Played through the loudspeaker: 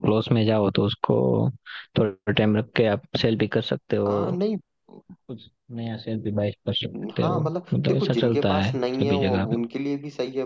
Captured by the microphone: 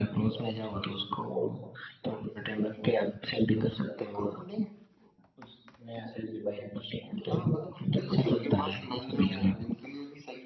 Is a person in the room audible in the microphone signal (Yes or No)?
No